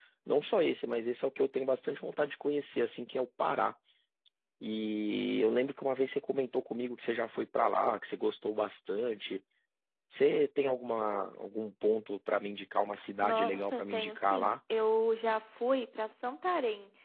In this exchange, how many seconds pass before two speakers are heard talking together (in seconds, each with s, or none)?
13.2 s